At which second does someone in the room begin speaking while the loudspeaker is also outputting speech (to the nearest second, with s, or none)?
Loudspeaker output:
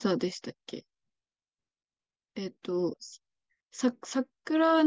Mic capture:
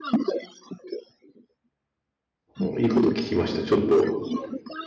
3 s